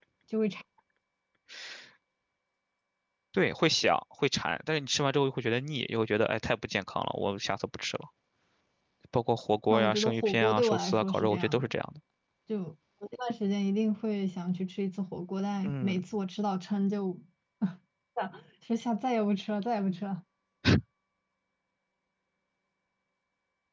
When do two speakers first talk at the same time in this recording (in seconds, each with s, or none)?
9.7 s